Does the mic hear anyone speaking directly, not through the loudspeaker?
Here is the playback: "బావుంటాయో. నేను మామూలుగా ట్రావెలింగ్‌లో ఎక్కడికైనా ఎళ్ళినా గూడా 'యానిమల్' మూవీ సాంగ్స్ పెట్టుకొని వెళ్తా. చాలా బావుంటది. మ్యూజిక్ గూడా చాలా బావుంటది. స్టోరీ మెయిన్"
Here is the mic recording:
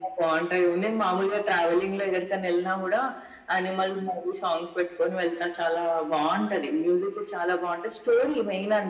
No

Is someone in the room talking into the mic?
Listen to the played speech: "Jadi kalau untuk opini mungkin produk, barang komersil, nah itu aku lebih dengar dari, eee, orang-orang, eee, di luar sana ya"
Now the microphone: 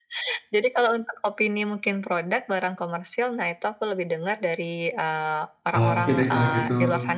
Yes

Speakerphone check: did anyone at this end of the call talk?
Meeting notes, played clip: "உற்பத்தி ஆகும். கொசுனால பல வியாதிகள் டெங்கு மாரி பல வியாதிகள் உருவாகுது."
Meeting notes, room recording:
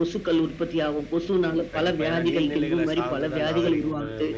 Yes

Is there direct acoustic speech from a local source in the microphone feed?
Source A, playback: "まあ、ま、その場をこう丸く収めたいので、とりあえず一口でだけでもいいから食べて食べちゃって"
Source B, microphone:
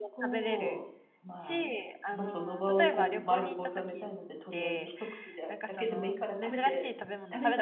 Yes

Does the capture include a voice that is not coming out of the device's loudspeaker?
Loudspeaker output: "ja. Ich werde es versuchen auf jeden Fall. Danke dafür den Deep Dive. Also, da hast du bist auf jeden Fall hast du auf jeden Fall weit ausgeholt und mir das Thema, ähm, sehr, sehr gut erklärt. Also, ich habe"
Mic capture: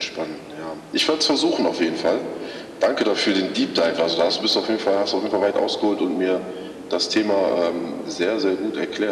No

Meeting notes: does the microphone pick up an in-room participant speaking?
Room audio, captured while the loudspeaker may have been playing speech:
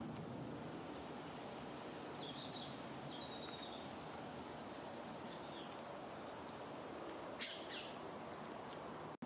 No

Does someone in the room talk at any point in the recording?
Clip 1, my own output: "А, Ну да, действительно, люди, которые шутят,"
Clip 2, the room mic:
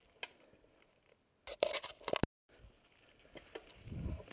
No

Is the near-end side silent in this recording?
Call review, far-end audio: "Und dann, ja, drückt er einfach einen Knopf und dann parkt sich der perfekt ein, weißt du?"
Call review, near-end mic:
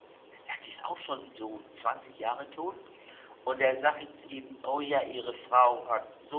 No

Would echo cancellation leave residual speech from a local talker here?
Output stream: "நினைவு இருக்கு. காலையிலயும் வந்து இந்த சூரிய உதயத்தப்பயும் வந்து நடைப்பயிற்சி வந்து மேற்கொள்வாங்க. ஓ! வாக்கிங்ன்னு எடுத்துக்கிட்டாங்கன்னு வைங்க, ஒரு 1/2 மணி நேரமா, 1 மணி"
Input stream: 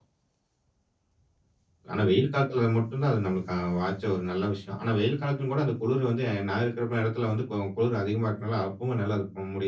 Yes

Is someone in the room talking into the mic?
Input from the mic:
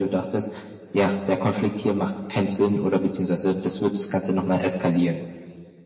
No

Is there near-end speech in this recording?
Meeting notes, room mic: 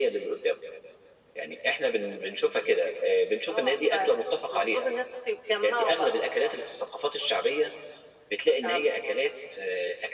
No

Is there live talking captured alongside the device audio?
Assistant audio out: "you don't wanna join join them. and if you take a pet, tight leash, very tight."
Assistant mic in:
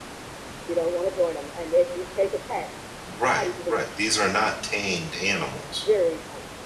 Yes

